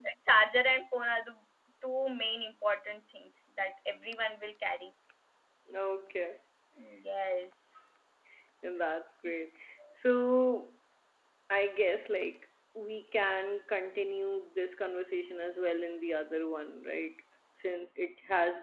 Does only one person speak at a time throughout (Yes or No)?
Yes